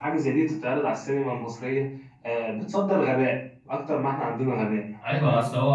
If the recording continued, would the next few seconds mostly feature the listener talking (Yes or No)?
Yes